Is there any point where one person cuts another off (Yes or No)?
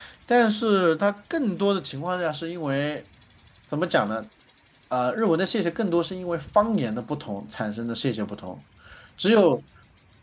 No